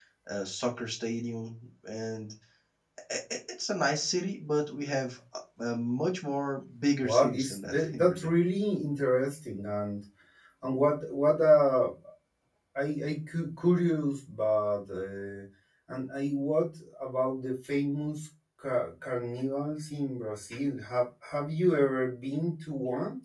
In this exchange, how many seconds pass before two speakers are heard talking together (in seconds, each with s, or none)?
7.0 s